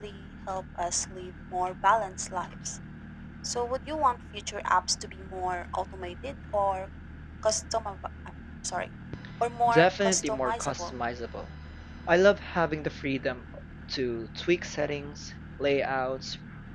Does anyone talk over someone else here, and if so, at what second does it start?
9.7 s

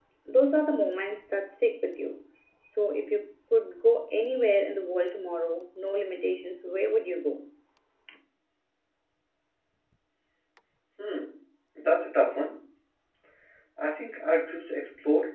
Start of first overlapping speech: none

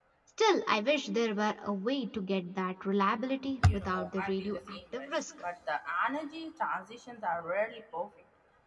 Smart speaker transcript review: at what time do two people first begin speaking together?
3.6 s

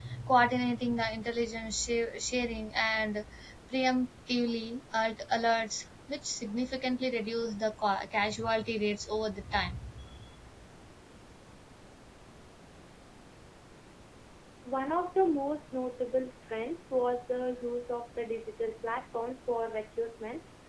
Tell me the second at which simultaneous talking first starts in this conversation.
none

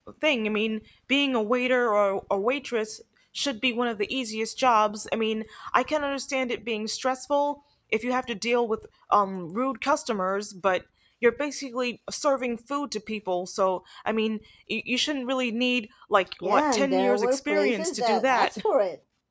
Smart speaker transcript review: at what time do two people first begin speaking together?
16.4 s

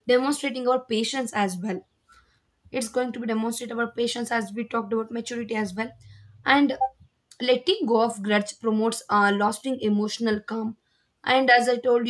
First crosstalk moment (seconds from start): none

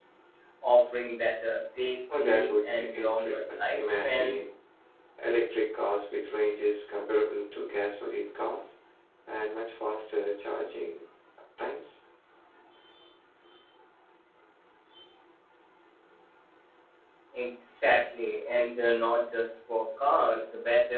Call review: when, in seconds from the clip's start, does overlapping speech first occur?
2.1 s

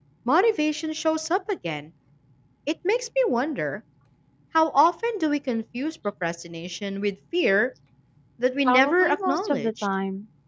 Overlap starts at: 8.7 s

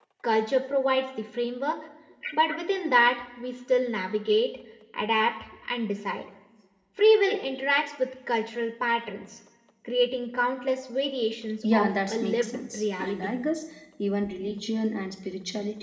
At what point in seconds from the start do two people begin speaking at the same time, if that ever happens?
11.6 s

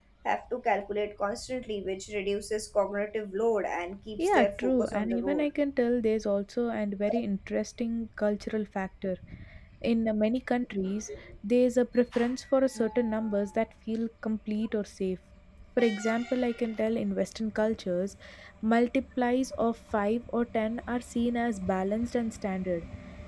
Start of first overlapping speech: 4.2 s

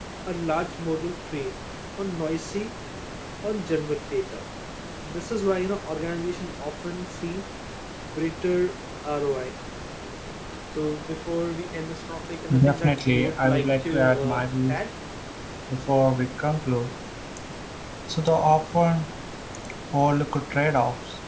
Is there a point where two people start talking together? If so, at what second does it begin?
12.5 s

